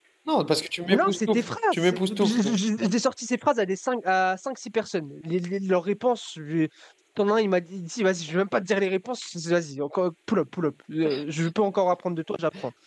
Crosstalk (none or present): present